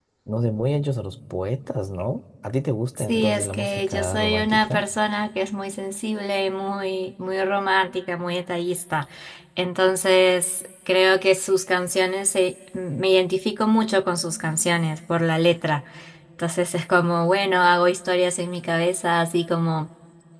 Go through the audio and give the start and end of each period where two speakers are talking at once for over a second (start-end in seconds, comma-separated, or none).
3.0-4.8